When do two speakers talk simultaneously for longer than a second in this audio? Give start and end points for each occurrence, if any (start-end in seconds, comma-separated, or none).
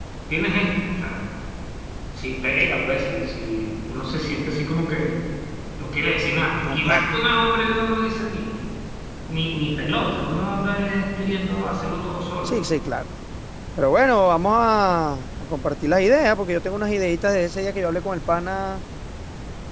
none